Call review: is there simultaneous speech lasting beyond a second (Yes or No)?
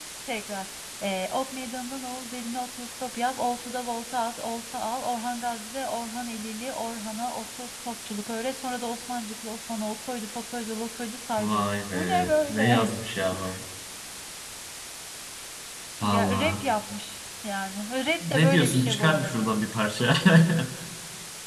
Yes